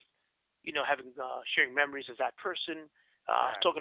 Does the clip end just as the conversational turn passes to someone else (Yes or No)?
No